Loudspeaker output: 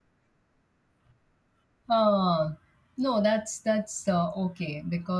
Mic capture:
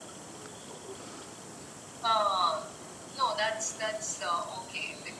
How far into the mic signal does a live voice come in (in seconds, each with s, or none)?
none